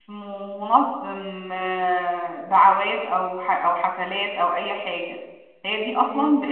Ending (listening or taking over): listening